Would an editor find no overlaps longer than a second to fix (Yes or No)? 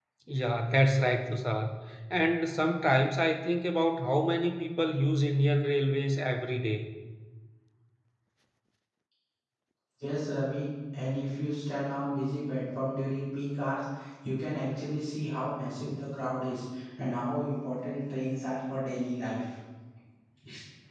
Yes